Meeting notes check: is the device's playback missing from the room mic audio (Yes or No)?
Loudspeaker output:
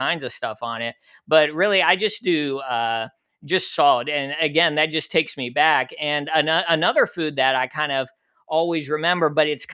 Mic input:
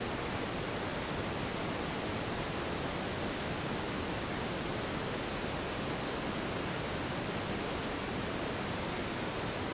Yes